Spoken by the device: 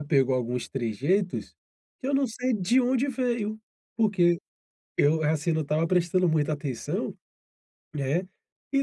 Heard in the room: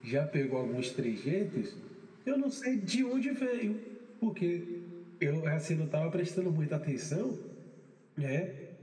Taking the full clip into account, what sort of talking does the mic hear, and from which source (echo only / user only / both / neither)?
echo only